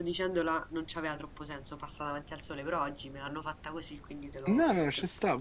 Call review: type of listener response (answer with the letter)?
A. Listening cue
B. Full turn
B